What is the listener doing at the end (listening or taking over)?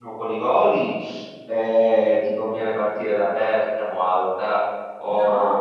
taking over